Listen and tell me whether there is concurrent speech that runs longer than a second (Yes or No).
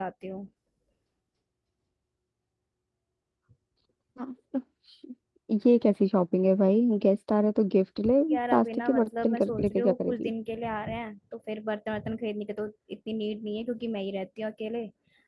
Yes